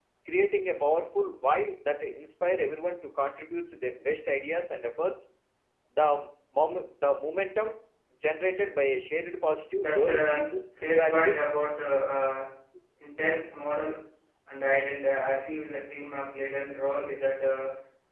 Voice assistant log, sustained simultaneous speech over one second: present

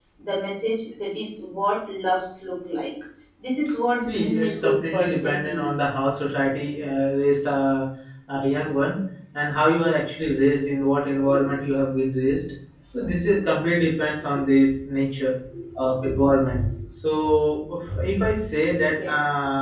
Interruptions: present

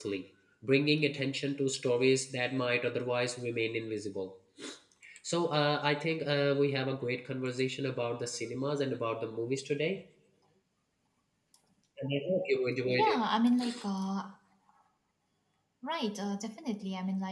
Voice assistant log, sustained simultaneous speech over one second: none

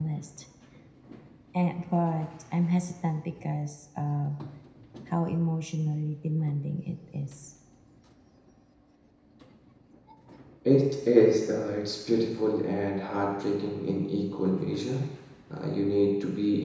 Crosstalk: none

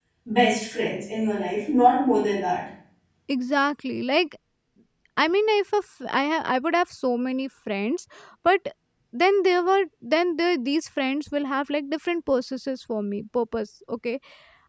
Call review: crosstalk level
none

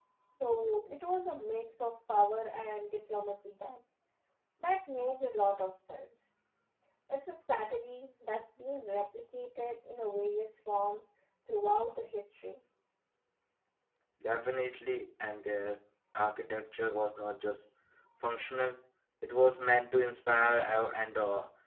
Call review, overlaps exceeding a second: none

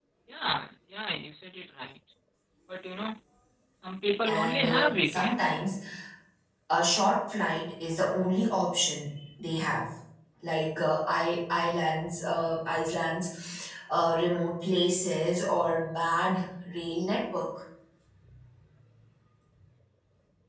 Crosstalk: present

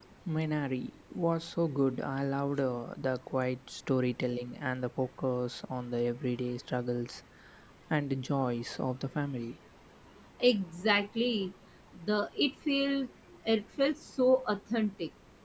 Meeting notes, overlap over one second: none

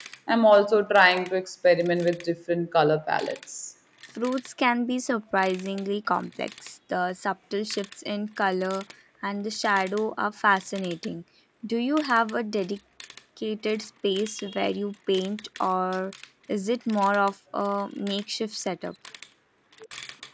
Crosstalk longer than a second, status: none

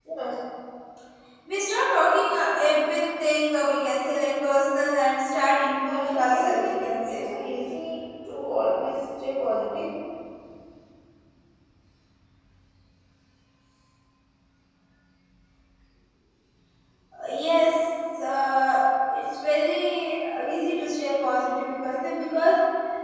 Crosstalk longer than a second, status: present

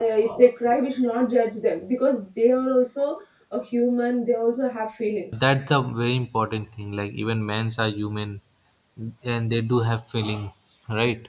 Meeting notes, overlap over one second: none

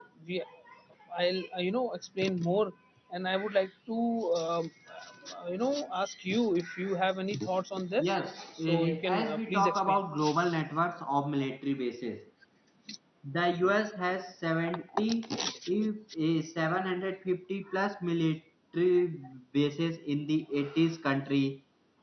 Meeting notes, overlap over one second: present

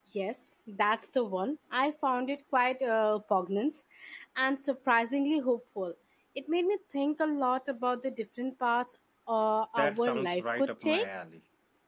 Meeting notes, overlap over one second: present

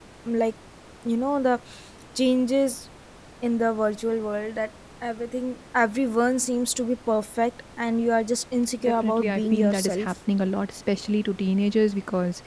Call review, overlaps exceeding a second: present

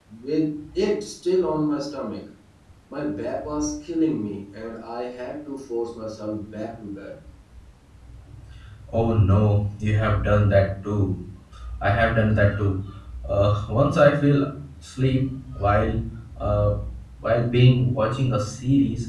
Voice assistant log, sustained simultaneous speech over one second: none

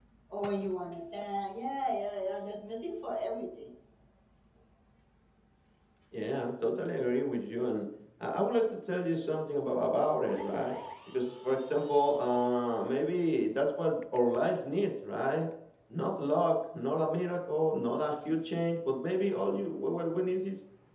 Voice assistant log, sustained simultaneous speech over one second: none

